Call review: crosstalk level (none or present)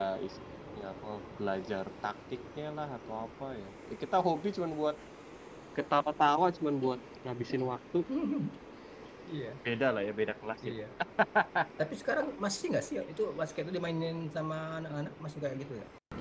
none